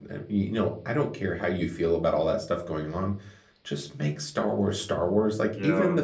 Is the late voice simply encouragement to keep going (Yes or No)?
Yes